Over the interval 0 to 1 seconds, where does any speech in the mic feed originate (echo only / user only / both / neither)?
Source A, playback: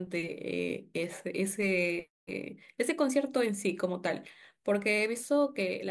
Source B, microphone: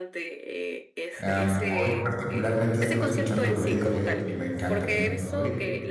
echo only